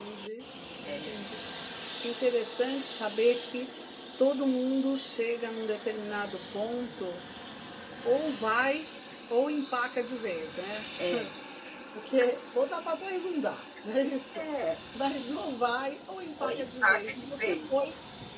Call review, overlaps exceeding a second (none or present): present